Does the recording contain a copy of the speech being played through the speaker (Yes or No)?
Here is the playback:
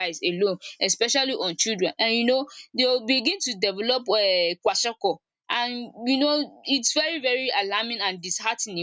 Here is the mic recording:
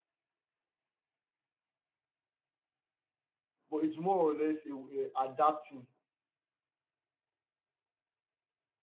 No